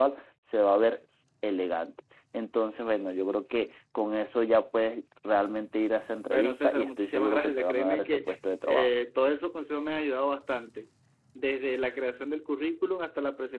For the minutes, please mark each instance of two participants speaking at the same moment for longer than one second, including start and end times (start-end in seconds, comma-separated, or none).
6.3-8.2